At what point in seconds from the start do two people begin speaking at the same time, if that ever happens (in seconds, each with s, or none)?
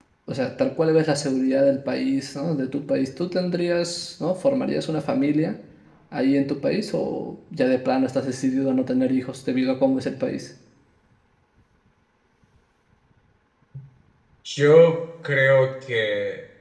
none